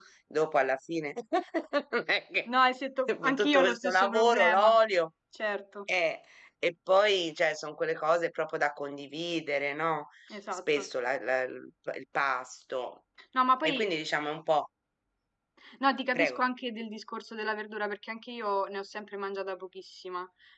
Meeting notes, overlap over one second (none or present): present